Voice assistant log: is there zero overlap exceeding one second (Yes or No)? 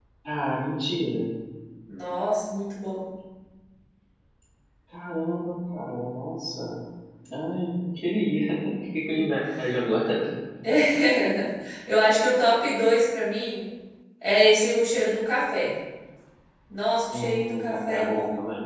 No